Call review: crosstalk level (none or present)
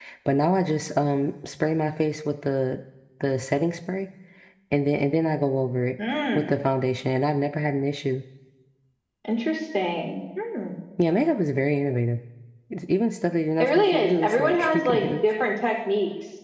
present